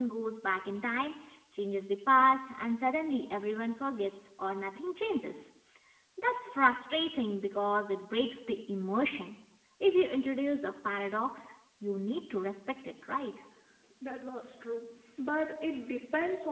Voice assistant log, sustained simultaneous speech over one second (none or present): none